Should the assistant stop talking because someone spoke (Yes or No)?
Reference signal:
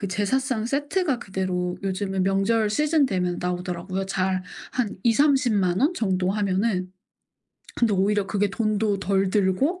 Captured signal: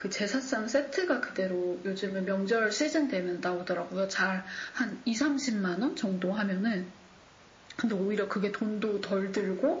No